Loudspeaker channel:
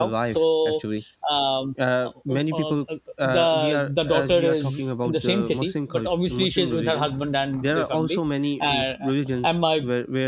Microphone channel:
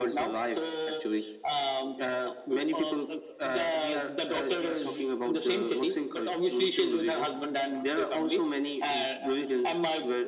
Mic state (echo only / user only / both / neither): echo only